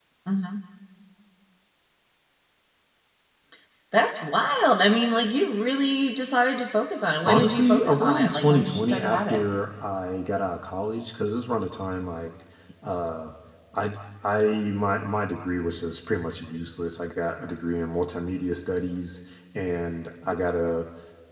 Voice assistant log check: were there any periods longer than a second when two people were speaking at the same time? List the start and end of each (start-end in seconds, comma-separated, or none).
7.2-9.4